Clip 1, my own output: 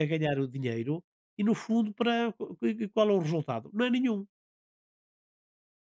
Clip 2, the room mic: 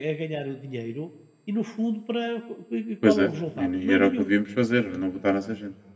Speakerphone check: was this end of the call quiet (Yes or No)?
No